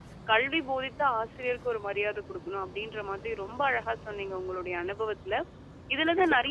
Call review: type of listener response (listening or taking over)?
listening